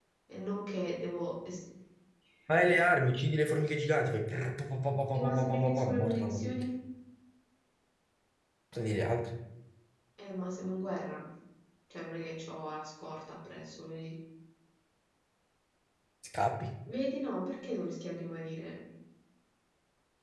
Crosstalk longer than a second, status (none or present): present